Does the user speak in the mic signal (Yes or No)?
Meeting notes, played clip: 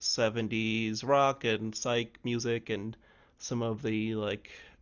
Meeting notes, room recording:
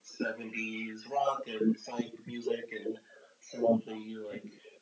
No